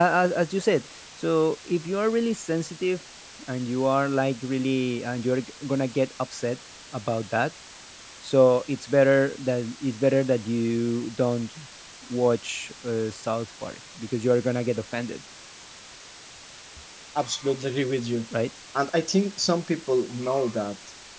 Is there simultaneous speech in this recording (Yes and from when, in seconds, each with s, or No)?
No